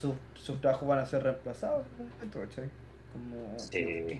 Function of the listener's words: listening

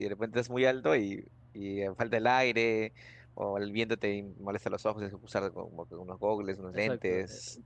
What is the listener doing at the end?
taking over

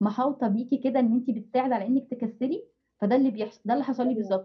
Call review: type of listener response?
listening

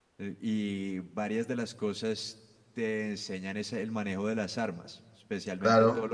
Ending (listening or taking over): taking over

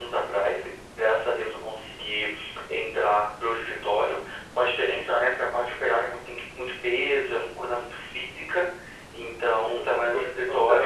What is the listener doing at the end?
taking over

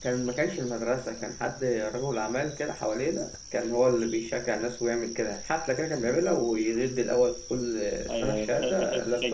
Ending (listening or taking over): taking over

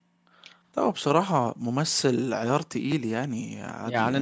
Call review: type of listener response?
taking over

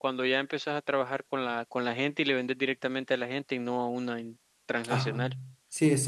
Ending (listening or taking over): taking over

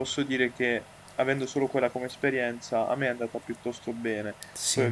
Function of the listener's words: listening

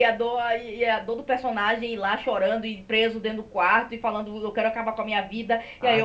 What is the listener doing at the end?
listening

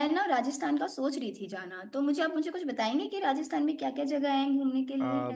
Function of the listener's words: taking over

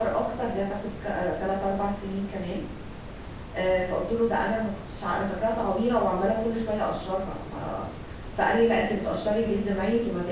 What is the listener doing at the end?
listening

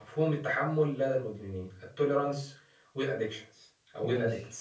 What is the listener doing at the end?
listening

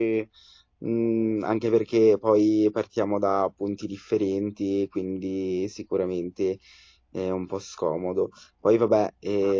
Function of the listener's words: listening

